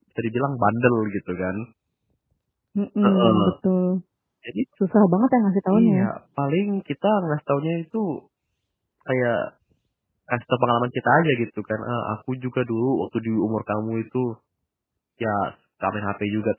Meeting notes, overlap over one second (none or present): none